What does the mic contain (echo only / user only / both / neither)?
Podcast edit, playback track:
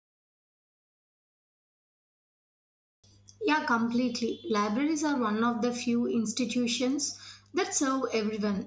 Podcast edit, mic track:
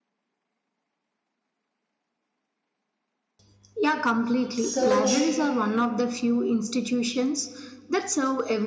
both